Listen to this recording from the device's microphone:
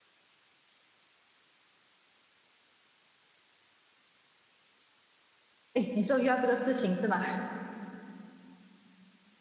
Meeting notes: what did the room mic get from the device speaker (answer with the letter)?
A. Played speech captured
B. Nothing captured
B